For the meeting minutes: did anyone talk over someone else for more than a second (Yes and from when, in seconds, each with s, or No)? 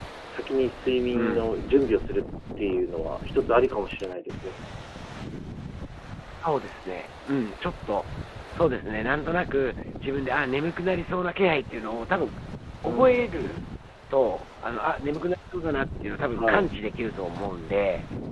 No